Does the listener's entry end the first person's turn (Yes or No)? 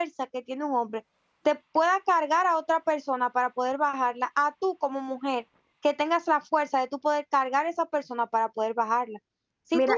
No